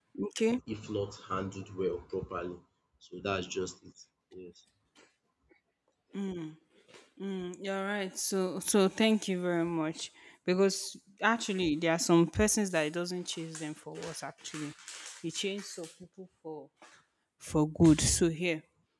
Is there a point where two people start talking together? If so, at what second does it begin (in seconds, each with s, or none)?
none